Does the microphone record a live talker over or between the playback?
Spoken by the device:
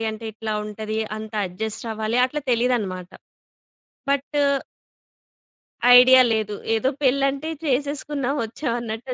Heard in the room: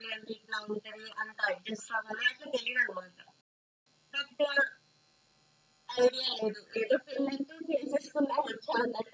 No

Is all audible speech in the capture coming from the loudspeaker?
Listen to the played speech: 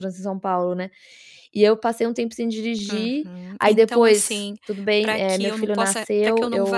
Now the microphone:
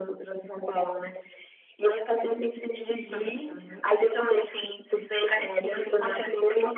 Yes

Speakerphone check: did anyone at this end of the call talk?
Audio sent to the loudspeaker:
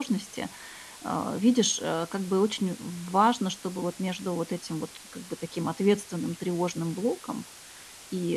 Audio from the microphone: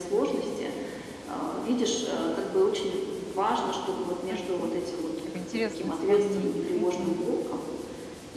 Yes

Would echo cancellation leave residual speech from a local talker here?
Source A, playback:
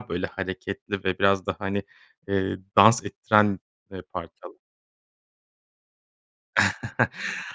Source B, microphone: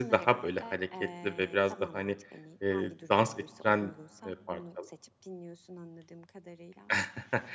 Yes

